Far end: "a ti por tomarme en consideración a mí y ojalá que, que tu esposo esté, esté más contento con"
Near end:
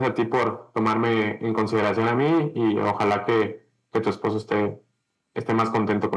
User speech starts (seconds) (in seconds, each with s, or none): none